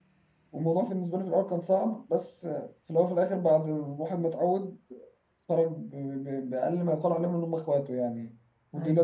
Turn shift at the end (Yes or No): No